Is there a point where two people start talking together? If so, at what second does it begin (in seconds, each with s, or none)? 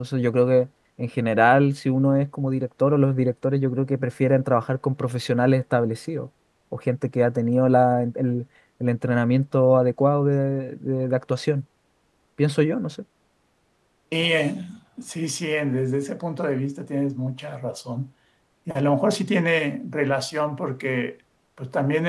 none